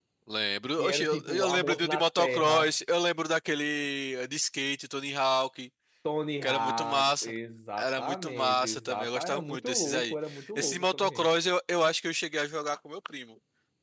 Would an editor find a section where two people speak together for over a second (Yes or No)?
Yes